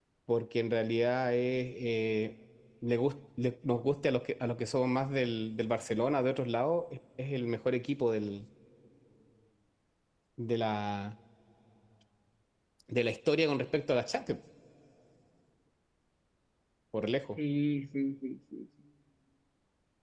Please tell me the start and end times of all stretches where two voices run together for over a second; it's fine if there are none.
none

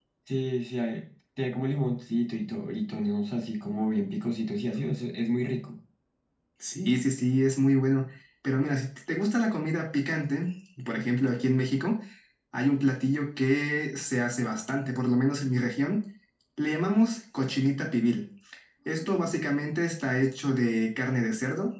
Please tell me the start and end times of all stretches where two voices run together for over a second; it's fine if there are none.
none

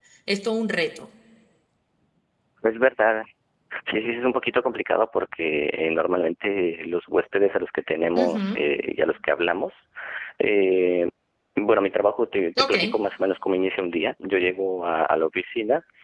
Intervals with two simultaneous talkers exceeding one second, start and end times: none

